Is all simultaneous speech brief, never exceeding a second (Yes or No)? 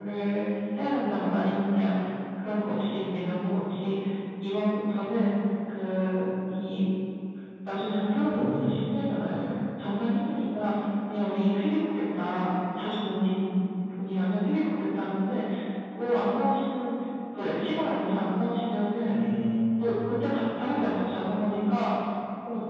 Yes